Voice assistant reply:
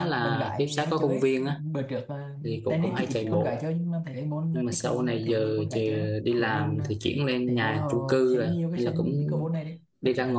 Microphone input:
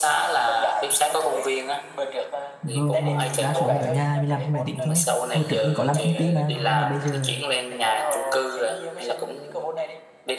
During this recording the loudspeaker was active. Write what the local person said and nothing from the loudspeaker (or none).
rồi mình đa số mình ở nhà mình làm trên máy tính thôi hồi trước mình có làm công ty mà nhưng mà bây giờ